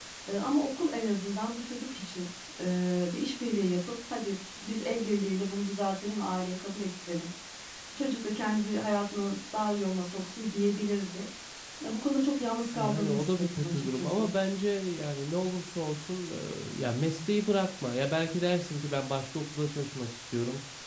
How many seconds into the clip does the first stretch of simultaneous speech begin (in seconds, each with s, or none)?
12.8 s